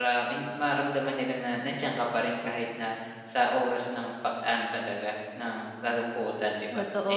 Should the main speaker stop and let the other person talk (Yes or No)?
Yes